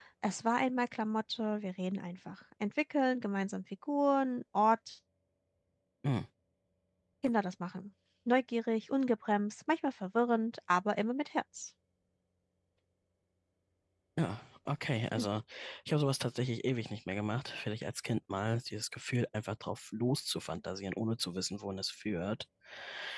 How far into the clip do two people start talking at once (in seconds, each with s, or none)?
none